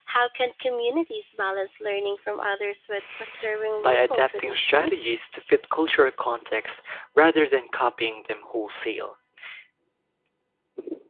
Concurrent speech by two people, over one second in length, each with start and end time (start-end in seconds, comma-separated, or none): 3.8-5.1